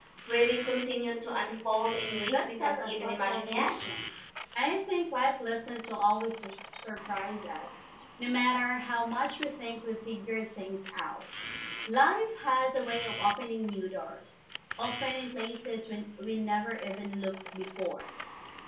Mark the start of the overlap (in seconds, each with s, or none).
2.2 s